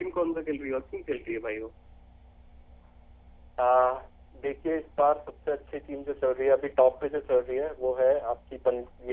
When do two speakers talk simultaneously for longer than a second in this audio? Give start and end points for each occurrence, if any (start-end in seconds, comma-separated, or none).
none